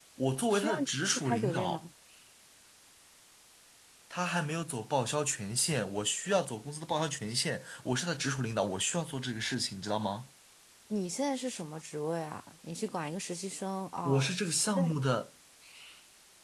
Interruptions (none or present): present